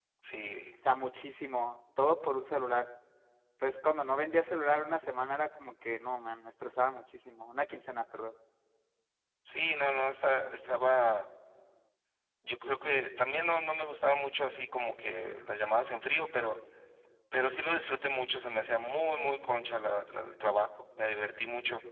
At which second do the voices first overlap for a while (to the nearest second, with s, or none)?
none